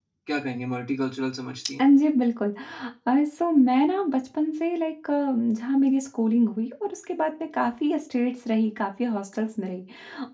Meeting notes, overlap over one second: none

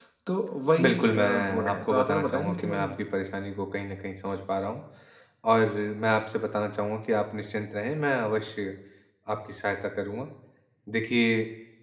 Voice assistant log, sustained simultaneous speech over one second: present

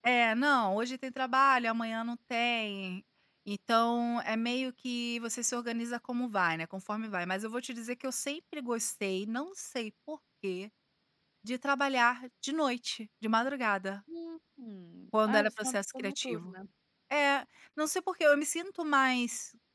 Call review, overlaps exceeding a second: present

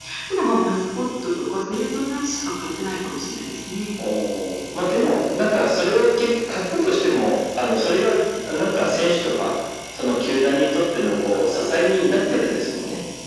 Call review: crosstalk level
none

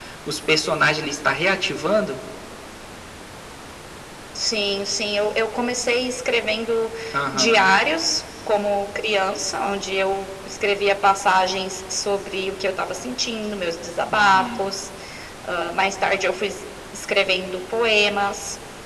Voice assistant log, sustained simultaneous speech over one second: none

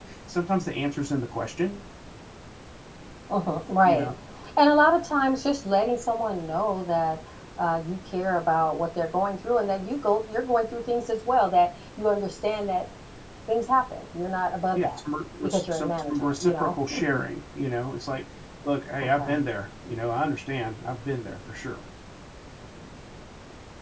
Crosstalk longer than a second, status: present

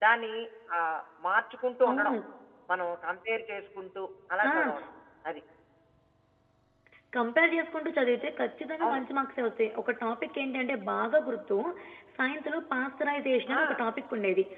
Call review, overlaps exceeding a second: none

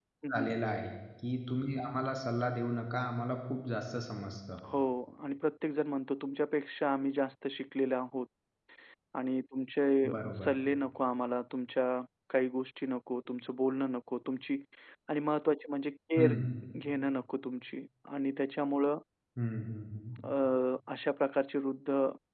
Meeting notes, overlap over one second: none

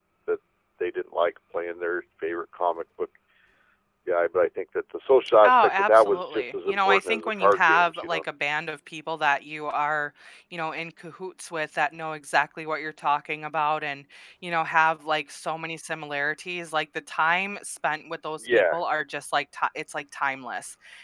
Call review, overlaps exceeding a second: present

